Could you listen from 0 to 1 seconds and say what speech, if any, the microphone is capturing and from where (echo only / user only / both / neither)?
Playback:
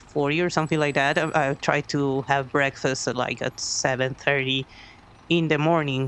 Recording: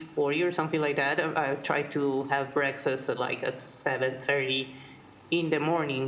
echo only